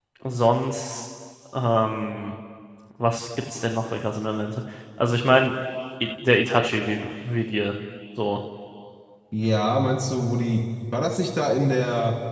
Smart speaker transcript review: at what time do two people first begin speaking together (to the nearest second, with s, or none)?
none